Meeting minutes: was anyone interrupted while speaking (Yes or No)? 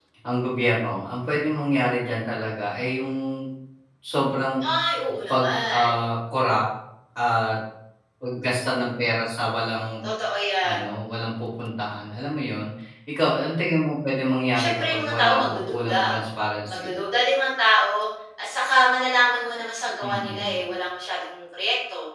Yes